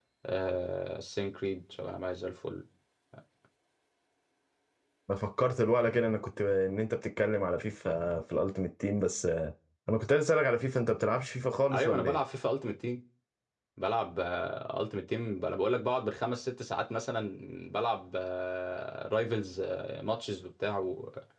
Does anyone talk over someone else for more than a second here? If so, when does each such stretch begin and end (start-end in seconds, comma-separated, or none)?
none